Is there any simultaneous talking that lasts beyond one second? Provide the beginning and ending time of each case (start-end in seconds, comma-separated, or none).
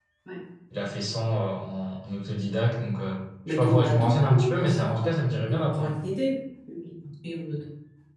3.5-5.1